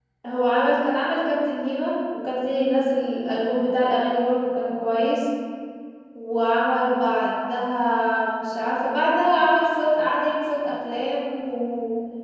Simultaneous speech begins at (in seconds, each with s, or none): none